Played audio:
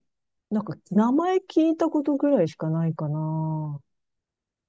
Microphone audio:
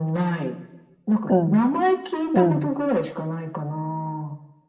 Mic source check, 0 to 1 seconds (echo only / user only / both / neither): echo only